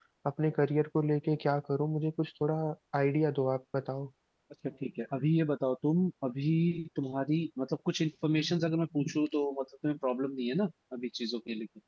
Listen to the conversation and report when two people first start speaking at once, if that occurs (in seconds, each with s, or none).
none